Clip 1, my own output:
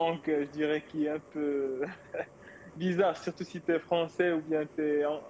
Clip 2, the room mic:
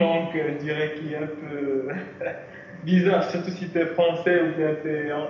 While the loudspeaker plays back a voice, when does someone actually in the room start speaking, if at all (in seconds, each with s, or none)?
none